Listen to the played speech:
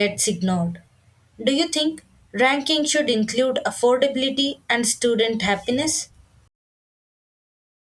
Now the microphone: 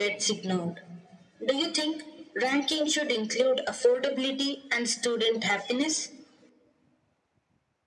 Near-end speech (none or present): none